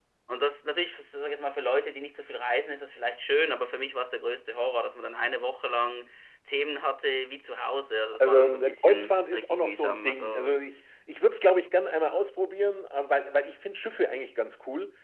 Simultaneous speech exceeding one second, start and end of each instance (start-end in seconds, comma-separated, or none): 8.1-10.6